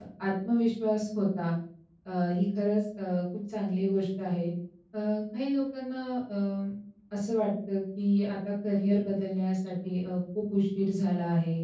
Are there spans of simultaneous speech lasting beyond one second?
No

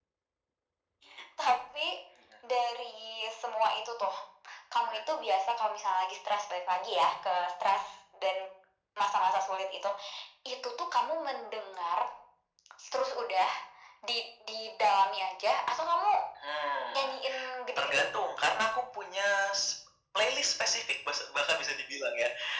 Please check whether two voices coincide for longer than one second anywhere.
No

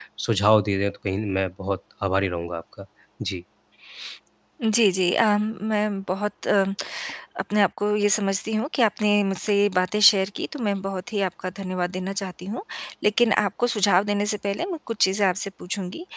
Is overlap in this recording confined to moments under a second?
Yes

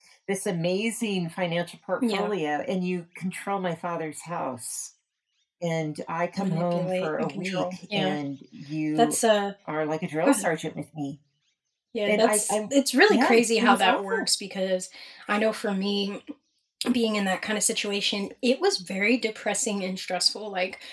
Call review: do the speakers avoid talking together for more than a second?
No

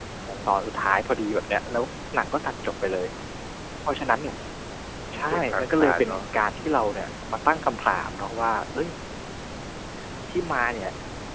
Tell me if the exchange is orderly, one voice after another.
No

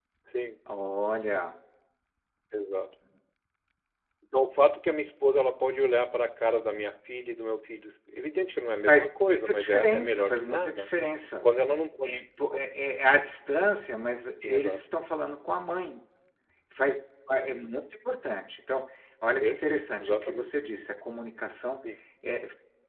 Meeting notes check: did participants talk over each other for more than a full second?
Yes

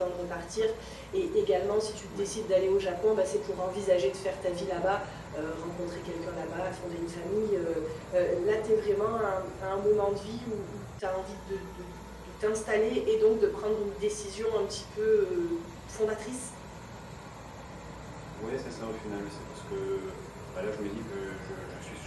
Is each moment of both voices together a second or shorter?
Yes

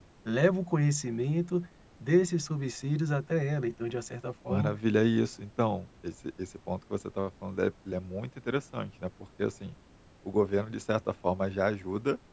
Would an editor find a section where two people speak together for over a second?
No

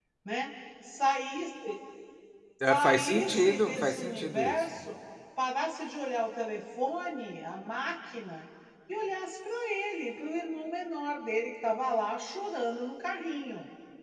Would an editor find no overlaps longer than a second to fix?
No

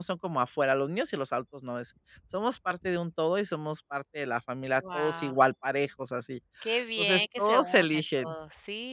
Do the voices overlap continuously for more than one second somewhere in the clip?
Yes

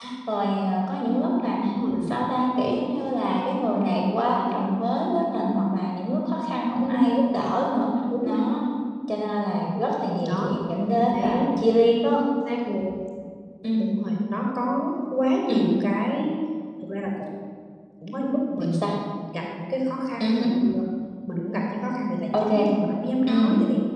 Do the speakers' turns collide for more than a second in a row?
No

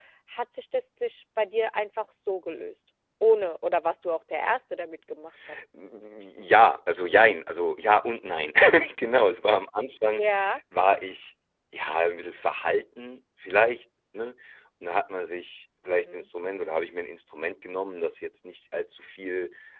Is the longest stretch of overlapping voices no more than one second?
Yes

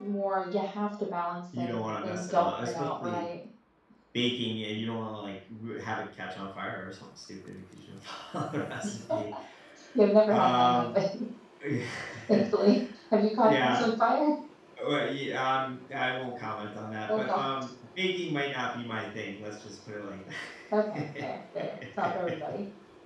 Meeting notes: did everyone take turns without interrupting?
No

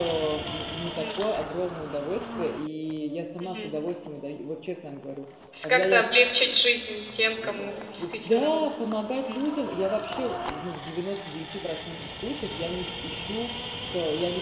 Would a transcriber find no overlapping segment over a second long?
No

